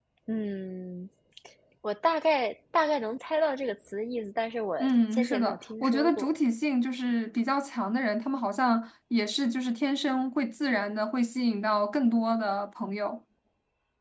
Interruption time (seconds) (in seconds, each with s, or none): 4.8 s